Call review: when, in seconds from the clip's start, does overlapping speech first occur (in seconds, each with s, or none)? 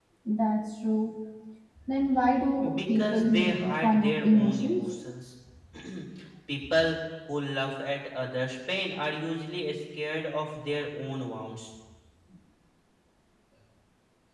2.8 s